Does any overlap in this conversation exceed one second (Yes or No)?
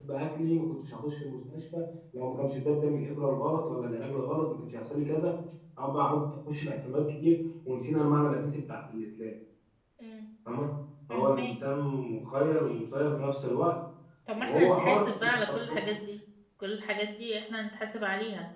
Yes